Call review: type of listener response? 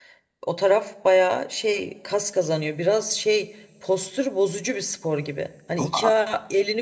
listening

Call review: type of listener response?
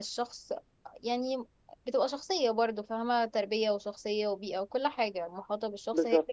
listening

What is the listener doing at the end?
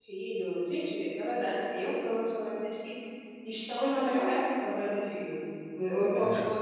listening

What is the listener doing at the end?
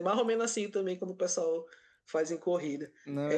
listening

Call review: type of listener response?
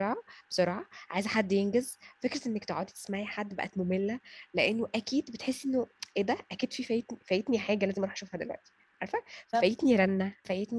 listening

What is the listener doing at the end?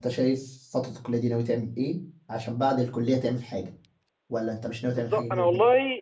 taking over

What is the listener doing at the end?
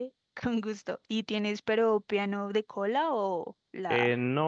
taking over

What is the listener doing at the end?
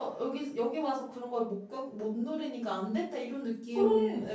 listening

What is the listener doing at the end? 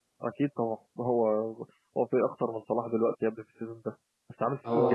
listening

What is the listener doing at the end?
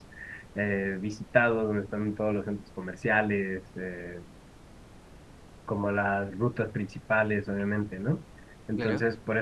listening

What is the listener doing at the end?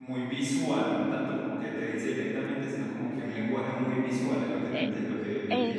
taking over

